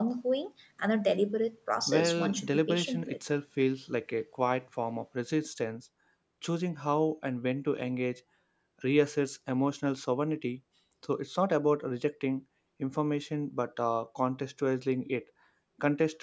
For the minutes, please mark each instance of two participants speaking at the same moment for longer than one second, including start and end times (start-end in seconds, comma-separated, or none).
1.9-3.2